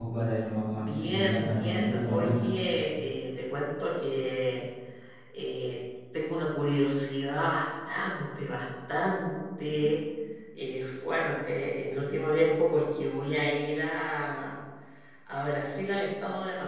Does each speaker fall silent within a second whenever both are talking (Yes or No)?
No